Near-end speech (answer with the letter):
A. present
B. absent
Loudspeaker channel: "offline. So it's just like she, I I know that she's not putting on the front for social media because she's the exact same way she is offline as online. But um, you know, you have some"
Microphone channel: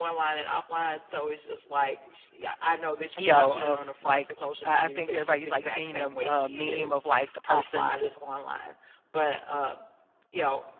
A